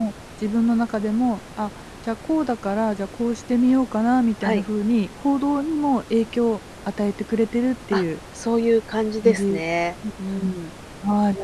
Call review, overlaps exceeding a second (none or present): none